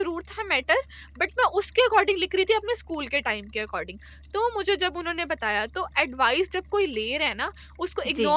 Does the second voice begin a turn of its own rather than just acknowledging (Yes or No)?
No